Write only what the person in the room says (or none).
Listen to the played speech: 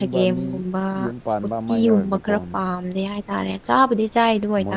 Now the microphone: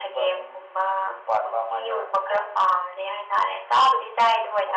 none